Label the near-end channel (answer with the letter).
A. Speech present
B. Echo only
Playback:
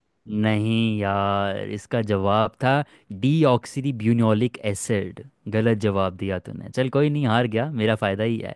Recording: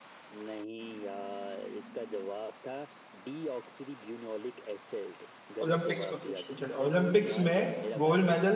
A